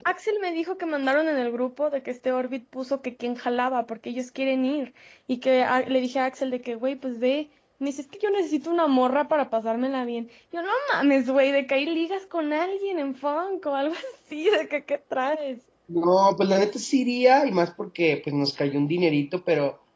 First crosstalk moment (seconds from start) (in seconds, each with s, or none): none